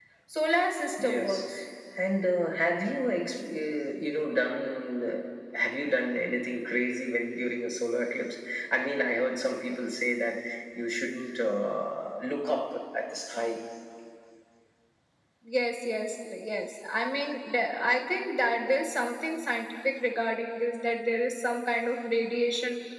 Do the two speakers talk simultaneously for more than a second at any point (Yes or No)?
No